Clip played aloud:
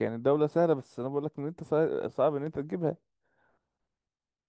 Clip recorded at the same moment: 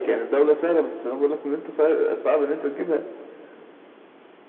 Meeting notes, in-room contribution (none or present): none